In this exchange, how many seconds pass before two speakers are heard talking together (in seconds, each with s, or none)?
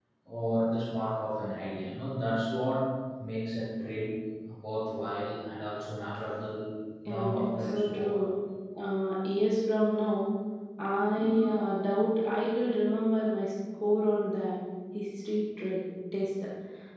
7.0 s